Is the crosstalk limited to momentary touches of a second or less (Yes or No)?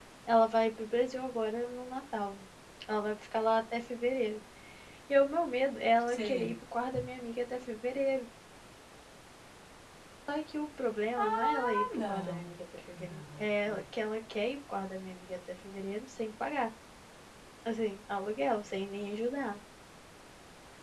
No